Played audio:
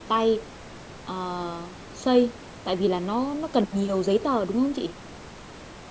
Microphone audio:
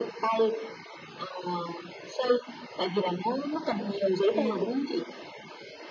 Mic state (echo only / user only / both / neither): both